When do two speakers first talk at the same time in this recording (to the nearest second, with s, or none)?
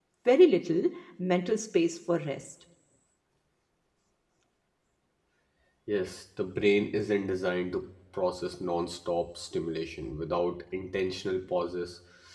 none